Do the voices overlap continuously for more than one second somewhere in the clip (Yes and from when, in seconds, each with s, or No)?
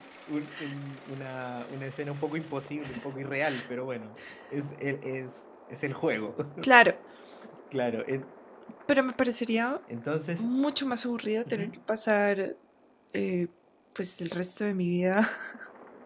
No